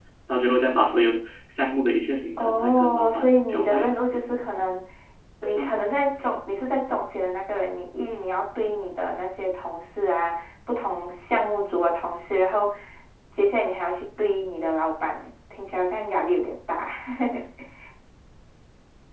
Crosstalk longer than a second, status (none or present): present